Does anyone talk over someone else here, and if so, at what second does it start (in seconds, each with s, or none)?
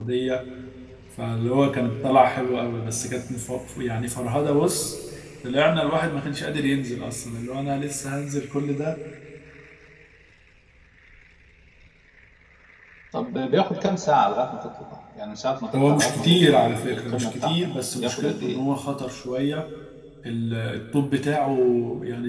15.7 s